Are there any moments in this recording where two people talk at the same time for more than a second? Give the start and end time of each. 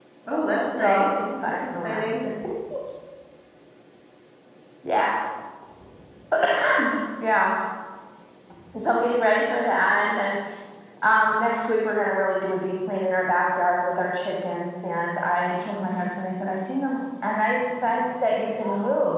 0.8-2.0

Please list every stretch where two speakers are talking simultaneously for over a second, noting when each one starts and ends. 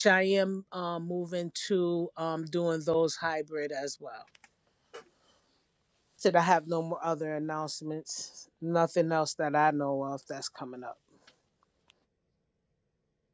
none

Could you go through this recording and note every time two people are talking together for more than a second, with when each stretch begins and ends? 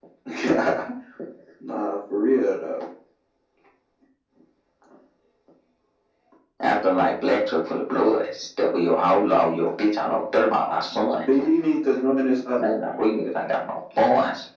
none

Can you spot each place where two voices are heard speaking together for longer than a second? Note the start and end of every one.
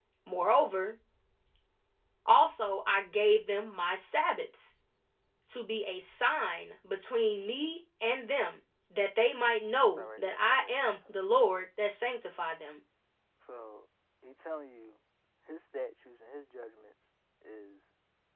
10.0-11.2

